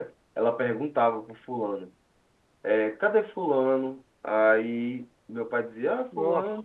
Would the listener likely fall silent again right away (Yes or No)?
Yes